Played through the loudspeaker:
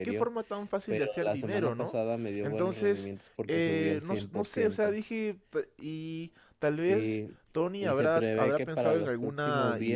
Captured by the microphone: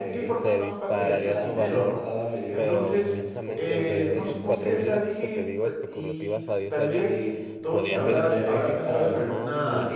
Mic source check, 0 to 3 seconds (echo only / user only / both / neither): both